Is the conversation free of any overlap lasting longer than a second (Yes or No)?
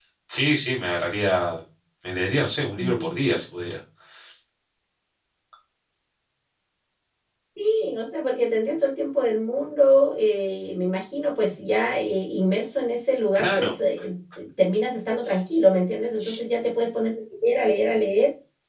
Yes